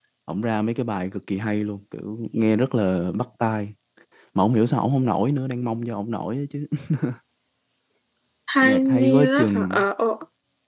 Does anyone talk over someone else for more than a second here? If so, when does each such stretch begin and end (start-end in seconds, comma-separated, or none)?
8.6-9.8